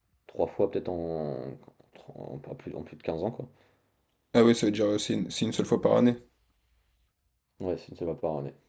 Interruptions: none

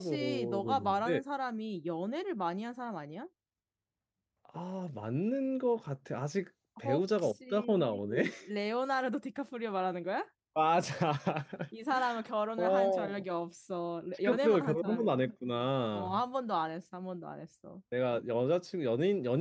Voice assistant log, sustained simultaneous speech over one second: present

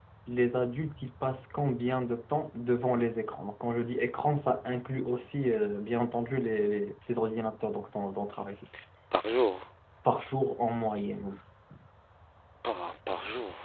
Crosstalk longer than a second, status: none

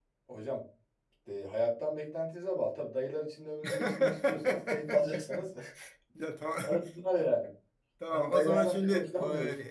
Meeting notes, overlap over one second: present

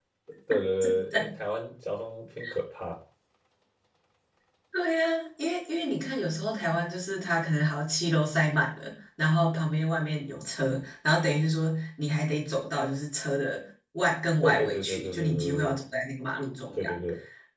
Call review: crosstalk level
present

